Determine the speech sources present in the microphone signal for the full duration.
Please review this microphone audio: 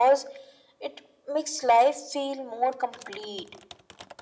echo only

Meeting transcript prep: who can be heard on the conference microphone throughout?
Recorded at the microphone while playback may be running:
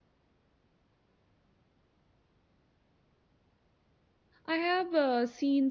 user only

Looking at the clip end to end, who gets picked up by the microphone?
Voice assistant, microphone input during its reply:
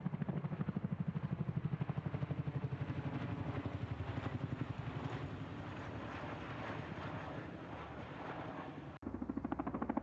neither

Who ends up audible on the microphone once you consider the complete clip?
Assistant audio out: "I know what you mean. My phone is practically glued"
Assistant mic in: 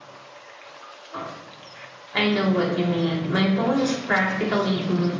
echo only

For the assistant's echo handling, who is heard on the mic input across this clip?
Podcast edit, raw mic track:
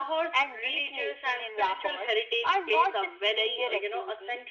echo only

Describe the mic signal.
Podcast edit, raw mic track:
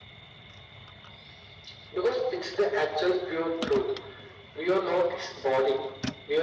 echo only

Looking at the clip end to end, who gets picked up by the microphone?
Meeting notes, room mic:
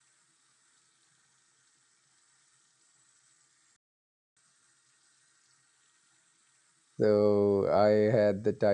user only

